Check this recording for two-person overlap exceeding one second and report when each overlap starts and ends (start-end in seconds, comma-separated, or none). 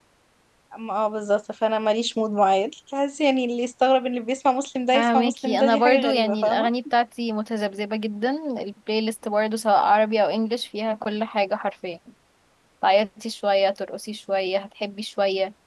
4.9-6.7